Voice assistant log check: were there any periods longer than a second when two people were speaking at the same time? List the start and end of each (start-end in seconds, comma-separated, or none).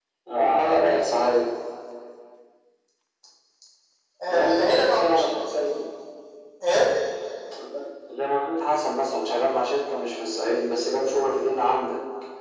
4.3-5.7